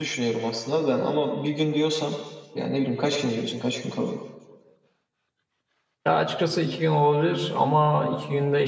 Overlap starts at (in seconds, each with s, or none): none